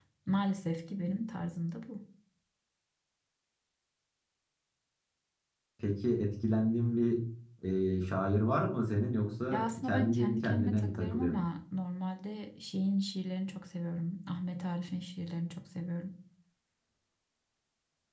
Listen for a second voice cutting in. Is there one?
Yes, from 9.5 s

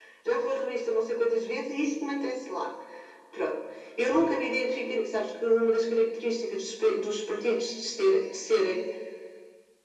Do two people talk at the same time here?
No

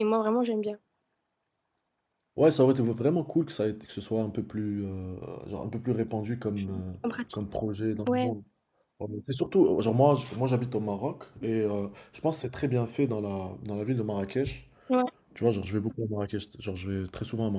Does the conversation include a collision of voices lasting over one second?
No

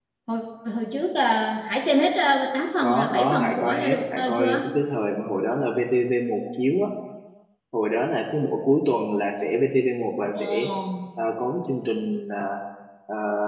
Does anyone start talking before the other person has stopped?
Yes, from 2.8 s

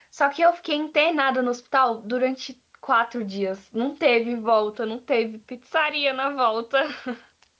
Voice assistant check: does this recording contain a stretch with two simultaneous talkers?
No

